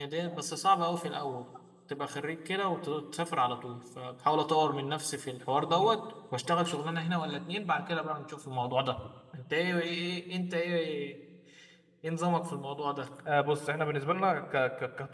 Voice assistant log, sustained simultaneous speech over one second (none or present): none